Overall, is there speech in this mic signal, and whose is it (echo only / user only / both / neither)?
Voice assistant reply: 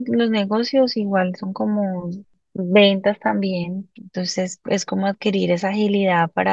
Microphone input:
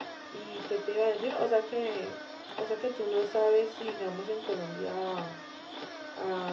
user only